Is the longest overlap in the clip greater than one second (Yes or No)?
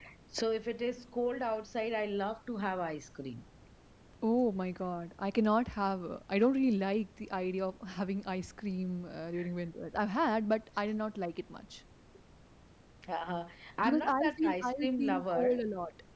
Yes